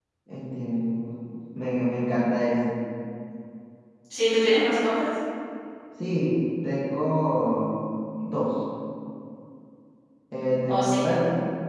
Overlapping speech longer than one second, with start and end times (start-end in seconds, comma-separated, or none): none